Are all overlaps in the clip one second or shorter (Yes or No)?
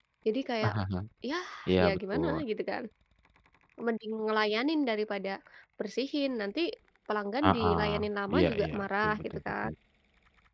No